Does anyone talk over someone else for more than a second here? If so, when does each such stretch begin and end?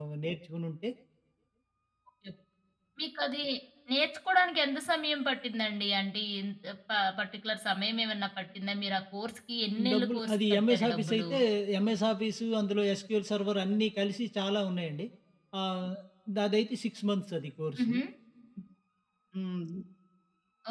9.9-11.2

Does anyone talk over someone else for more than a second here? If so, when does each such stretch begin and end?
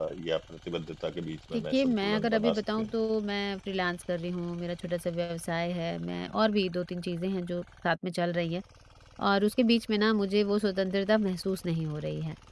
1.5-2.9

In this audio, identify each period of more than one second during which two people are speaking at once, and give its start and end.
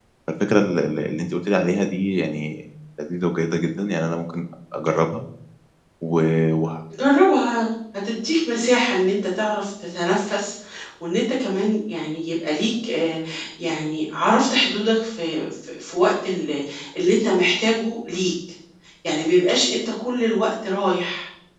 none

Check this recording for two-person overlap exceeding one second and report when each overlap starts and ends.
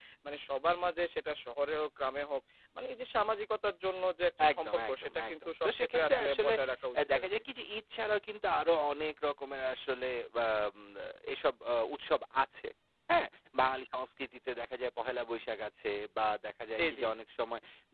4.5-6.5

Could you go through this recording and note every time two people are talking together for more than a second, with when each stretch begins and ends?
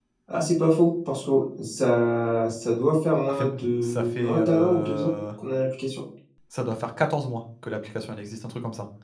3.3-5.1

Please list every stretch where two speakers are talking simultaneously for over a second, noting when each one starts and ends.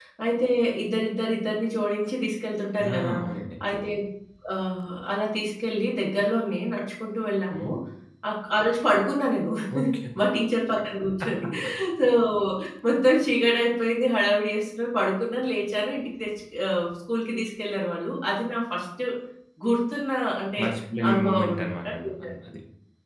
21.1-22.3

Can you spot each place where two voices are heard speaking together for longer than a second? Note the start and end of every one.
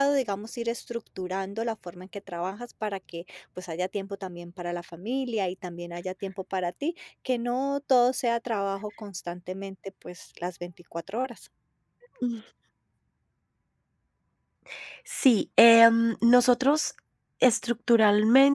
none

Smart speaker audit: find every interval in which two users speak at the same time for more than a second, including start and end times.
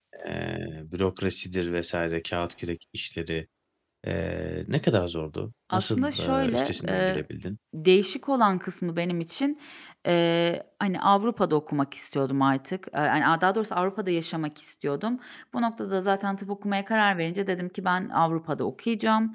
5.7-7.2

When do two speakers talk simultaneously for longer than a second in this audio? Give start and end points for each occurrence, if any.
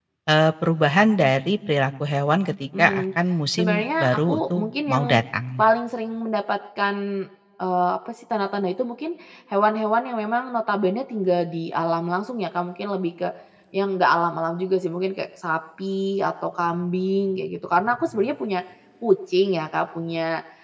3.6-5.0

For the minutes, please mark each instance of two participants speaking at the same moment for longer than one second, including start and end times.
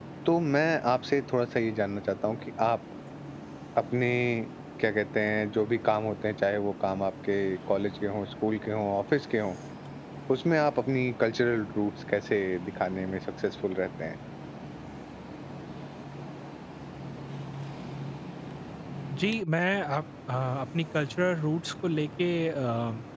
none

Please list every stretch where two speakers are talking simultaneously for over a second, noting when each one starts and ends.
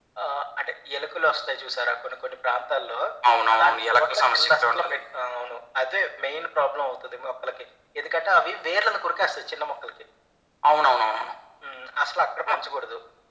3.5-5.0

